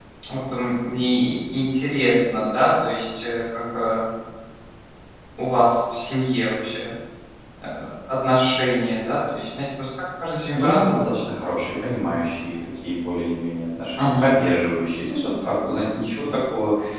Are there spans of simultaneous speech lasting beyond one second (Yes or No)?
No